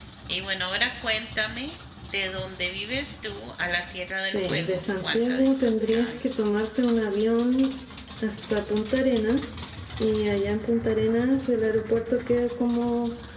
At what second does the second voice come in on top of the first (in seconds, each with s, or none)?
4.2 s